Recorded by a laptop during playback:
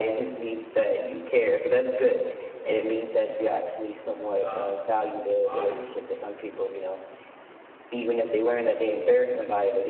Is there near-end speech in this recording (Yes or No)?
Yes